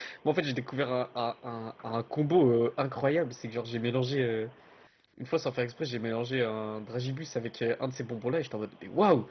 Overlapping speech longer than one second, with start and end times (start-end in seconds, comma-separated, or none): none